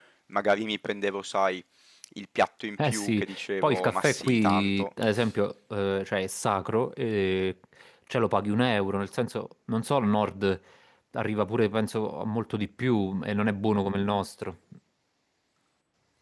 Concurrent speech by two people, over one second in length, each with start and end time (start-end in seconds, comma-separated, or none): 2.8-4.8